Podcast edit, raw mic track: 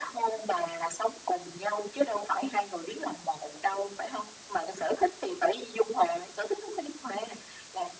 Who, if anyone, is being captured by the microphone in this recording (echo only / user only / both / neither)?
echo only